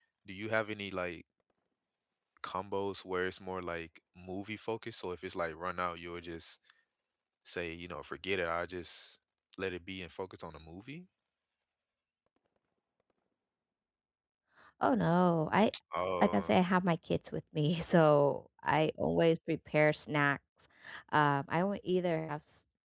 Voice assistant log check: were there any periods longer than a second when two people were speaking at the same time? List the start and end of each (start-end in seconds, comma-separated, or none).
none